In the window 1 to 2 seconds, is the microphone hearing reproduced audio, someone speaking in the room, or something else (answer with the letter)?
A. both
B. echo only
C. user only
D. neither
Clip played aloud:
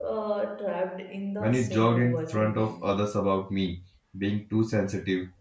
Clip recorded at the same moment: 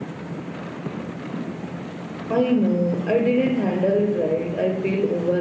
D